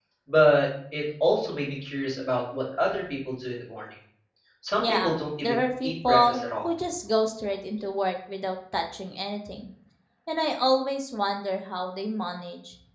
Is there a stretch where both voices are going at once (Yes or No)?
Yes